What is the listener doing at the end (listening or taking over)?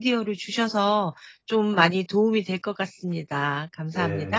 taking over